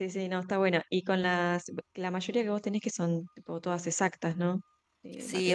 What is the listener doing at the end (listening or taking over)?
taking over